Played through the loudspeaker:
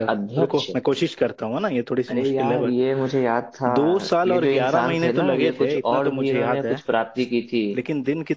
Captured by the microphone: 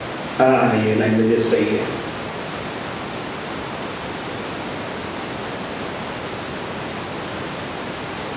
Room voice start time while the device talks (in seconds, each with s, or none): 0.4 s